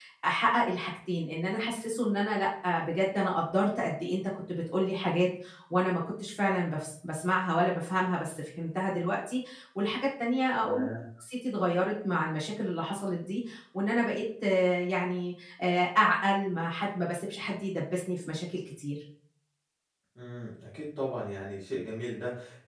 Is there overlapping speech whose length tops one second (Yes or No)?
No